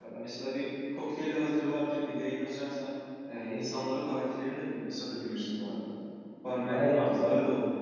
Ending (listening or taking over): taking over